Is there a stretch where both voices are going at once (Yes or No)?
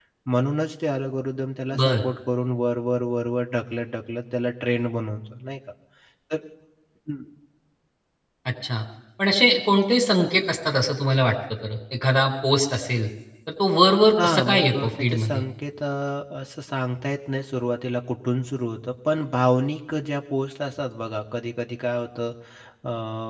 Yes